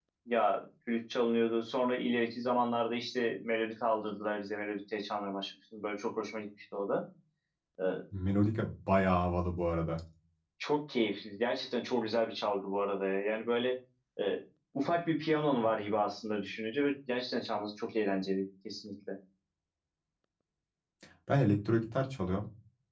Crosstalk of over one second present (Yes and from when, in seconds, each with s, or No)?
No